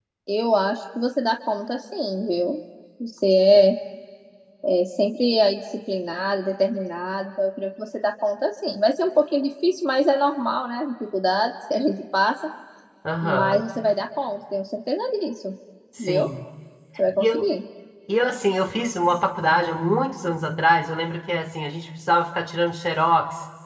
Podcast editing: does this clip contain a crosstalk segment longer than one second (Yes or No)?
No